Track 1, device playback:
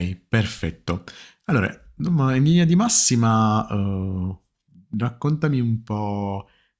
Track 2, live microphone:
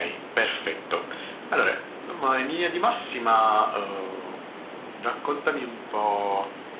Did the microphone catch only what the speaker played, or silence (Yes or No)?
Yes